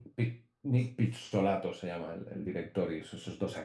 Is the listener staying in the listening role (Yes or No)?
Yes